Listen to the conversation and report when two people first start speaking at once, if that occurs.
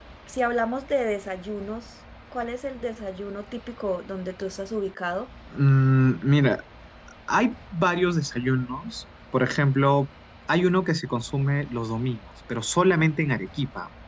none

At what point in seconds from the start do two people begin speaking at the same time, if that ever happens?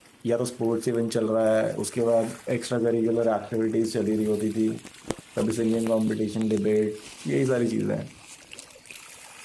none

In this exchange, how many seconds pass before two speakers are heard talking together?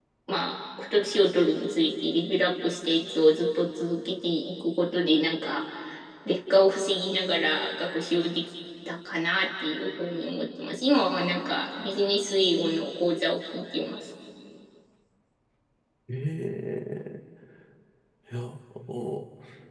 none

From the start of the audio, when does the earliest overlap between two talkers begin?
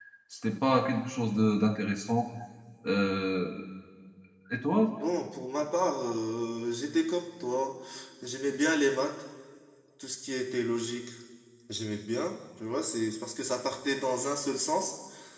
none

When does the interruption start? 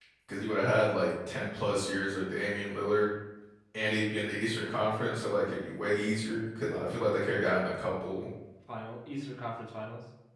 none

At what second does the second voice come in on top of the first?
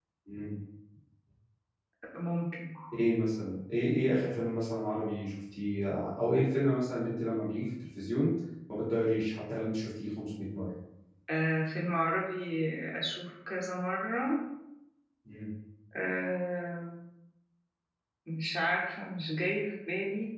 none

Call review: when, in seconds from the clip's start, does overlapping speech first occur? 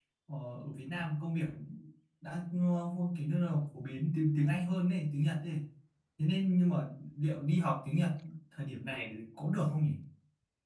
none

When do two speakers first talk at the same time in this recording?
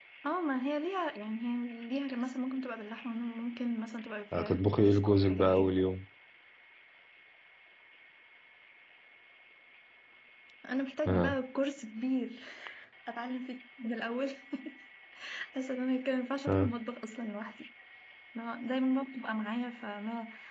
4 s

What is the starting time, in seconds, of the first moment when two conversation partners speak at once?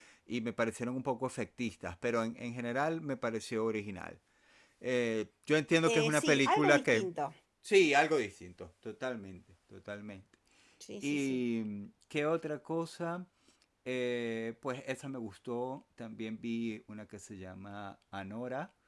6 s

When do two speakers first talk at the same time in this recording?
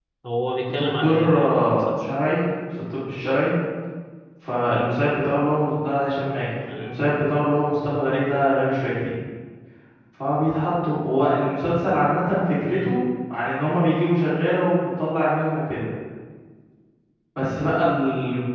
1 s

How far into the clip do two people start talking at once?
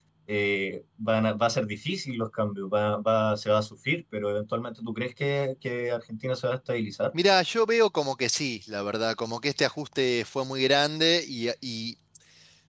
none

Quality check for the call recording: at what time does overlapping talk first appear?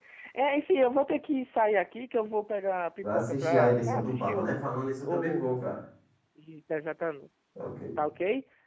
3 s

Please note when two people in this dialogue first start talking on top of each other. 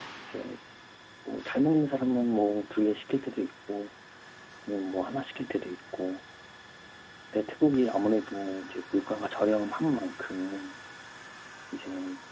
none

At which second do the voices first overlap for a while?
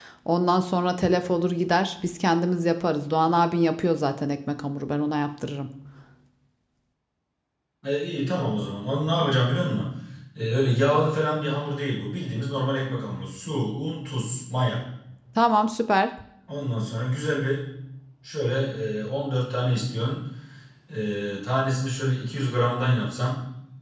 none

